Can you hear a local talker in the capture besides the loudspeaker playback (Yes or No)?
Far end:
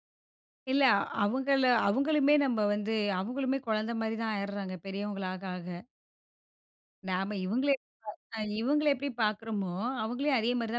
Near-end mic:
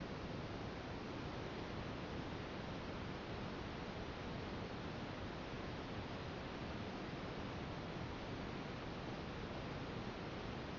No